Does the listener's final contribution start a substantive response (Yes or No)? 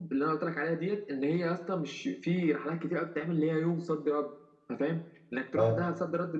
No